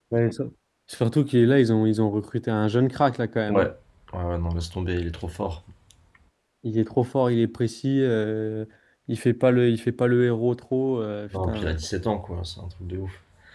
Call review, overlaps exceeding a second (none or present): none